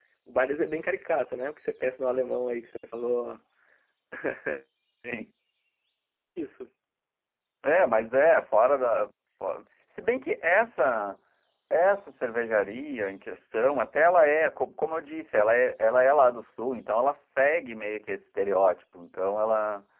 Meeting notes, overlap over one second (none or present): none